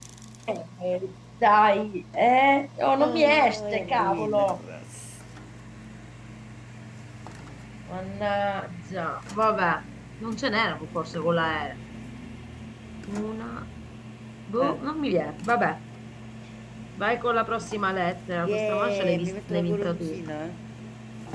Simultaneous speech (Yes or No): Yes